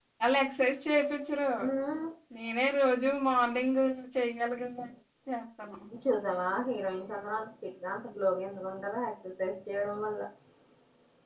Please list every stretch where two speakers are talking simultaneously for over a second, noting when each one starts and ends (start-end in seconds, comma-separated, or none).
none